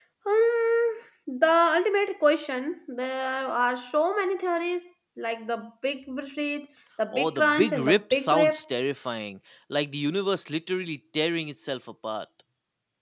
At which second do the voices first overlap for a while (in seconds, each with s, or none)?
7.1 s